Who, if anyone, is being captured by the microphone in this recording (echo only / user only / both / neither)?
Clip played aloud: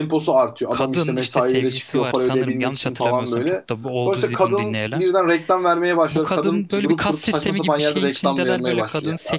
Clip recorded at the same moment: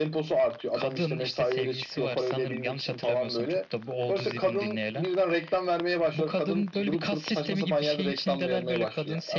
echo only